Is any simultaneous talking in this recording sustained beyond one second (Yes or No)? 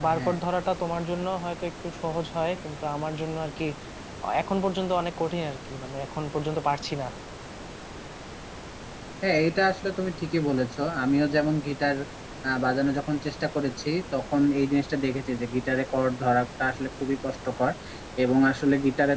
No